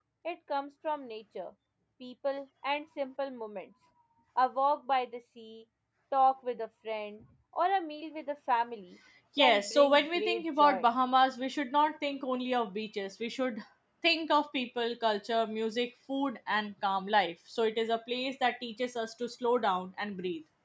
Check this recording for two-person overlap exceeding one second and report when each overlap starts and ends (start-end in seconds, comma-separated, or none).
9.4-10.9